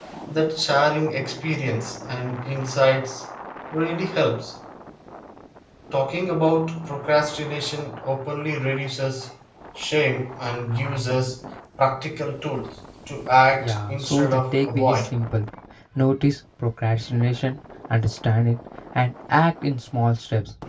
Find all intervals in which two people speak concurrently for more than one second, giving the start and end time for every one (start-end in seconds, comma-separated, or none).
13.6-15.2